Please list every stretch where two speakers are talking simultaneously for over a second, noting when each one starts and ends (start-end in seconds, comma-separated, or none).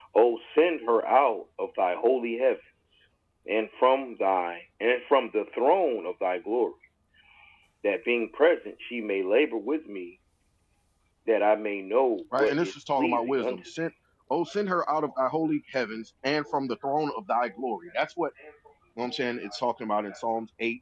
12.4-13.7